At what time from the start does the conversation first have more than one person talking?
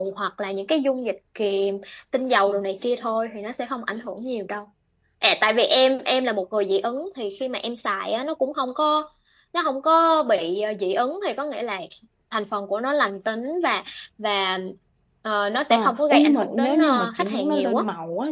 15.7 s

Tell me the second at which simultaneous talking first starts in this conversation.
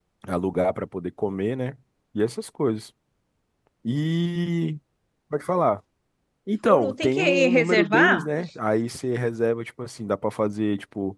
6.7 s

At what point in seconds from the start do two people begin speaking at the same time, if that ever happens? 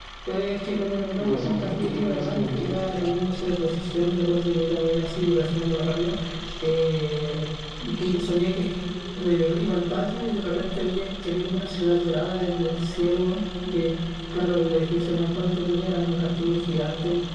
1.2 s

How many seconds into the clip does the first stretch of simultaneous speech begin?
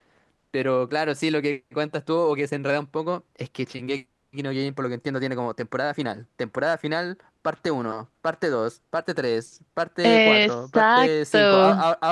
10.0 s

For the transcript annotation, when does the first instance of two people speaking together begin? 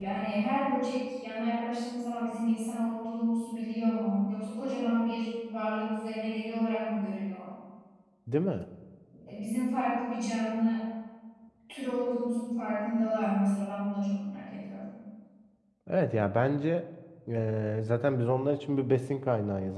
none

